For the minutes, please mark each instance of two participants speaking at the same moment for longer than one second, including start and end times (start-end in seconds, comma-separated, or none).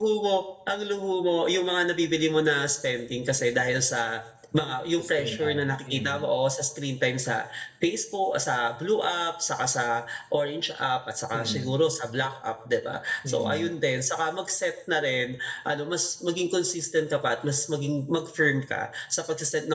5.0-6.2